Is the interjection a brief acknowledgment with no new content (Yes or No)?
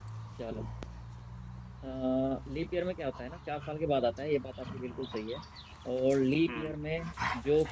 Yes